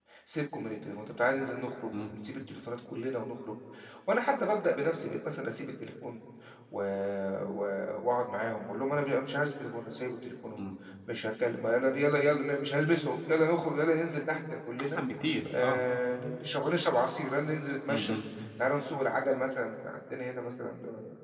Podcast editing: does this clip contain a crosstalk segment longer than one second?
No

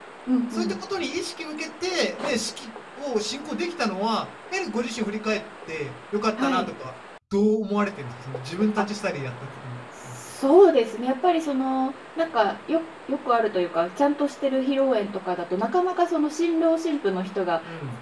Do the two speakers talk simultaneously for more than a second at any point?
No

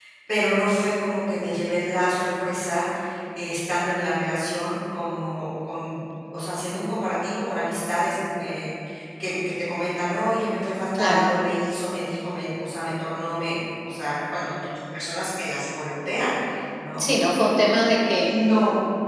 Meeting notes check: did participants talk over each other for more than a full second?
No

